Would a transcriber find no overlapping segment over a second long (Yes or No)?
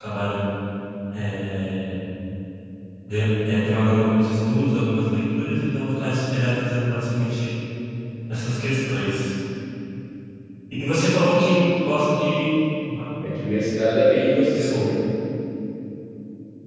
Yes